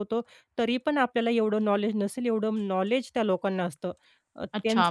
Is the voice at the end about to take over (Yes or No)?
Yes